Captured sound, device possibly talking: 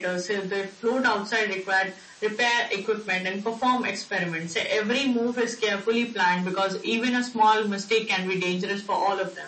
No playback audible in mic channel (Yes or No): No